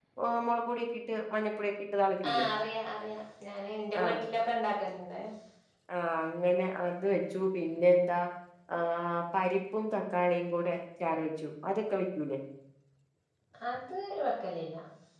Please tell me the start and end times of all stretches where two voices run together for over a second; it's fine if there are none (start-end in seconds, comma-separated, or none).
none